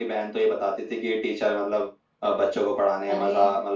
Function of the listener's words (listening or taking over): listening